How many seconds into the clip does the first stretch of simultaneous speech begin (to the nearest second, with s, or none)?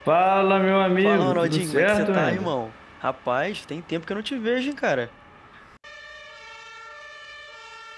1 s